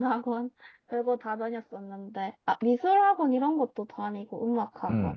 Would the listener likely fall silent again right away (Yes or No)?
No